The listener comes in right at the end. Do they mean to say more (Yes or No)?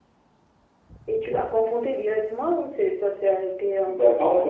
Yes